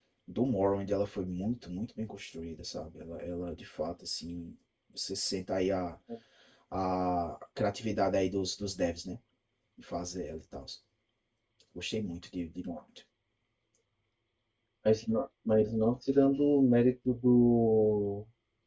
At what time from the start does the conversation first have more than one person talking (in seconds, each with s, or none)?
none